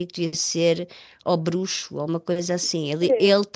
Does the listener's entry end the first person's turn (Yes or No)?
No